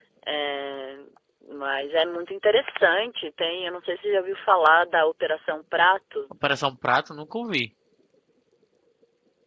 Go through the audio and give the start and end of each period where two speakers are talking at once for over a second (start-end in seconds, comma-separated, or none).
none